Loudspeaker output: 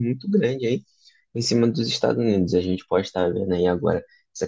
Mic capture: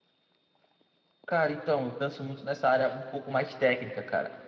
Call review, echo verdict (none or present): none